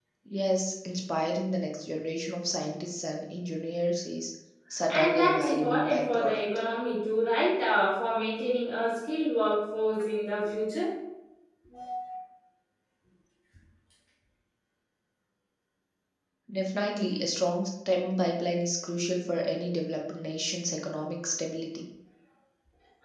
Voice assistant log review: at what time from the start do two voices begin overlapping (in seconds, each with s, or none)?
4.9 s